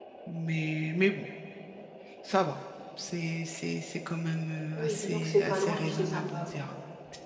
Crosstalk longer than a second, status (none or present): present